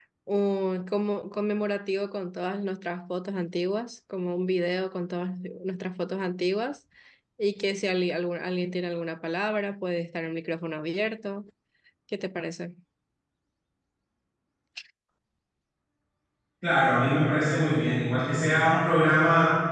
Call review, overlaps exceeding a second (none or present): none